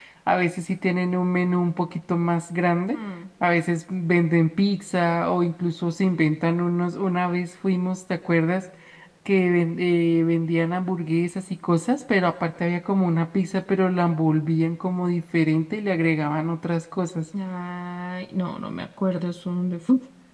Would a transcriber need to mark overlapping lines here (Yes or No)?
No